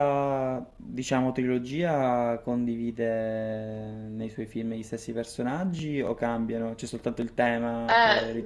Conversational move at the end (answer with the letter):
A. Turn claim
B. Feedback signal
A